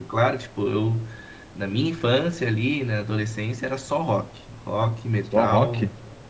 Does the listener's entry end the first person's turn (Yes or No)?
No